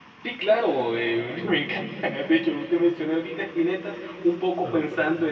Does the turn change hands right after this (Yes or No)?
No